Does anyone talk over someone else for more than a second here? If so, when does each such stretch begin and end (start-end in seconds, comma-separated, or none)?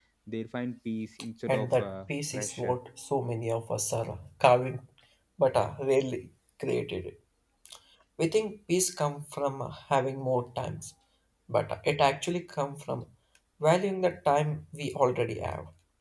1.5-2.8